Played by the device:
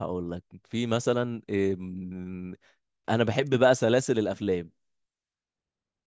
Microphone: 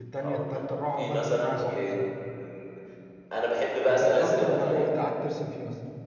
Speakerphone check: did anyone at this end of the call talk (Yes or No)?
Yes